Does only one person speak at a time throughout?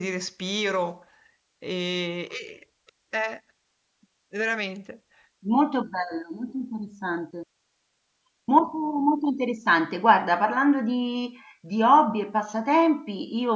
Yes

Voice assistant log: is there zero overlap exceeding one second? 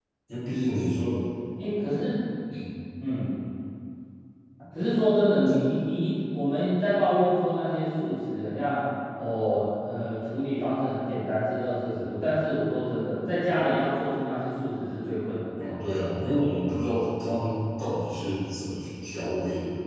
Yes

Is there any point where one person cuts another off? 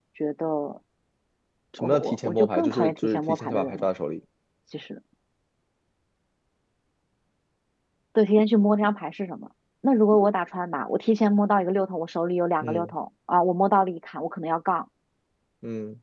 Yes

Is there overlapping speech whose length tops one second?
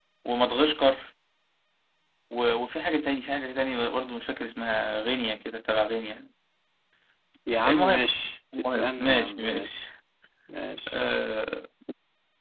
Yes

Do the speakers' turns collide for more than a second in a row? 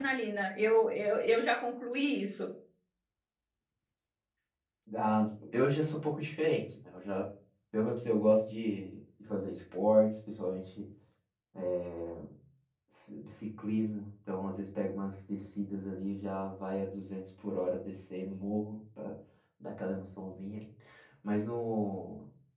No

